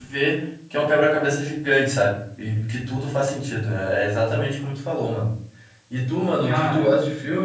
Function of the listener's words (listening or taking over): listening